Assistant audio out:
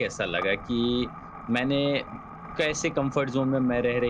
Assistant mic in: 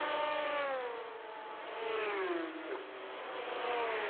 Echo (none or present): none